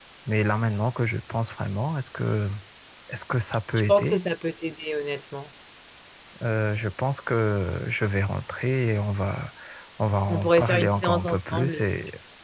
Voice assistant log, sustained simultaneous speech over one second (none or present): present